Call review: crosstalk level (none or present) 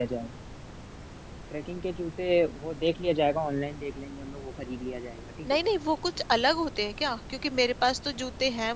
none